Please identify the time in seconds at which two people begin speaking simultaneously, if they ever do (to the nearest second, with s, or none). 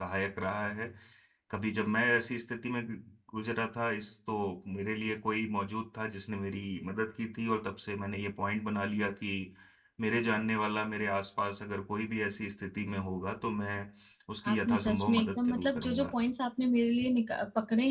14 s